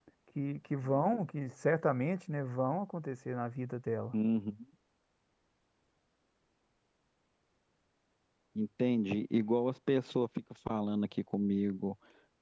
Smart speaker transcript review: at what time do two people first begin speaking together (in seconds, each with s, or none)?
none